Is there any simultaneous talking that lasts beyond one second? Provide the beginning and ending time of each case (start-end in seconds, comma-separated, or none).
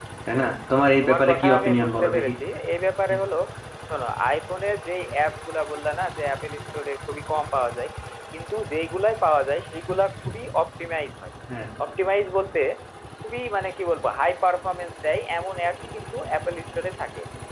1.0-2.3